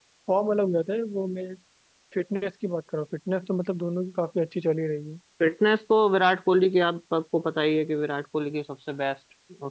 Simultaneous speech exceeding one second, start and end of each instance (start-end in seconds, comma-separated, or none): none